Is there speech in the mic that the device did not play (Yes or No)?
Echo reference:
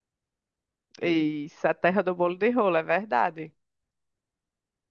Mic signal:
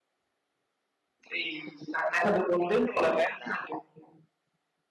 No